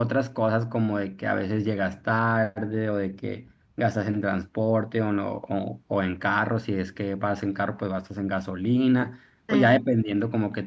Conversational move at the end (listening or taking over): listening